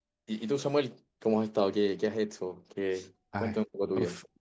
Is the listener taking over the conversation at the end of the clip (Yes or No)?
Yes